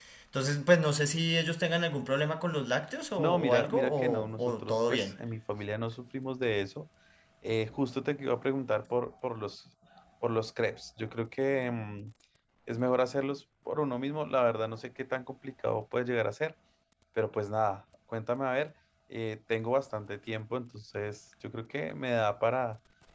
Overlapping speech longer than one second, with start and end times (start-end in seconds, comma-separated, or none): 3.2-5.1